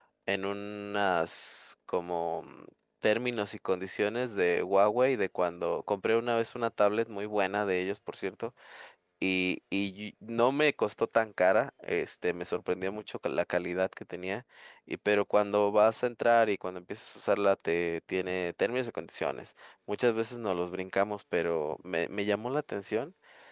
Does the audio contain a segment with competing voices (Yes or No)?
No